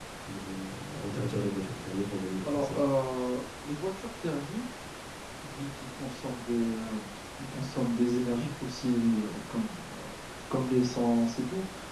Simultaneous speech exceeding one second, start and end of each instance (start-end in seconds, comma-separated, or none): none